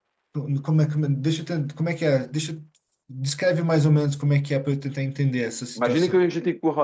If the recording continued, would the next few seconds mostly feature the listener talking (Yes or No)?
Yes